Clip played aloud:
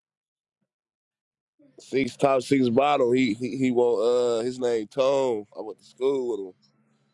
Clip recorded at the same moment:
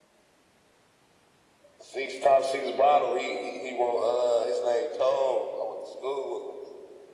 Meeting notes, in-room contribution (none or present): none